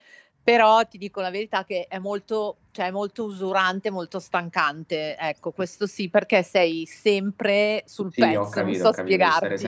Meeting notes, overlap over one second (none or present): present